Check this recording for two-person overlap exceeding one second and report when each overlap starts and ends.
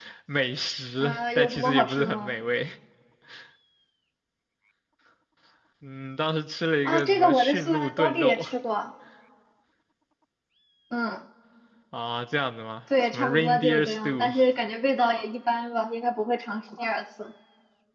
1.0-2.3, 6.8-8.5, 13.0-14.3

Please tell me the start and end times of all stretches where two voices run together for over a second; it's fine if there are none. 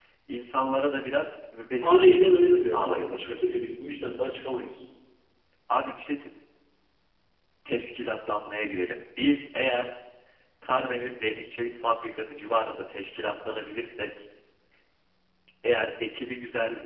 1.8-3.4

